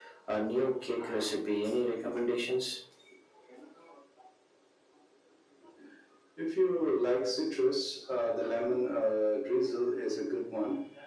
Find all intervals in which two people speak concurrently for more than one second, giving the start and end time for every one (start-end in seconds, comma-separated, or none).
none